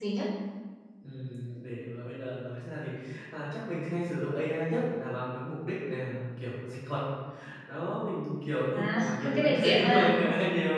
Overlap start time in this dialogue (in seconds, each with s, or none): 8.7 s